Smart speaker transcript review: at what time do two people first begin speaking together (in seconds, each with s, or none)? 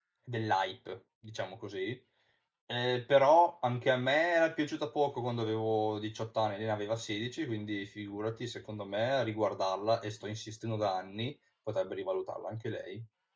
none